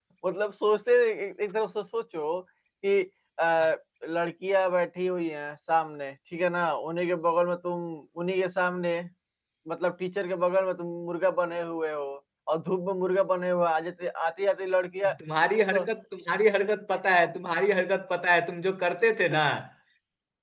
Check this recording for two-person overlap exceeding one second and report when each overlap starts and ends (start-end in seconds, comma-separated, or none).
none